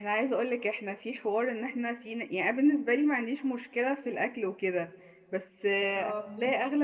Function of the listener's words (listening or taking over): listening